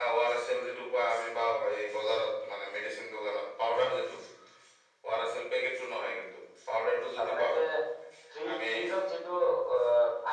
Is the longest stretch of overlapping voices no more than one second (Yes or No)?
Yes